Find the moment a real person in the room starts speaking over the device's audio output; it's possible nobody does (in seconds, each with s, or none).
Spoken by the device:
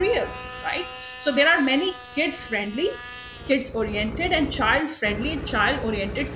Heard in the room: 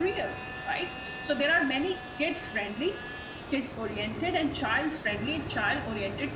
none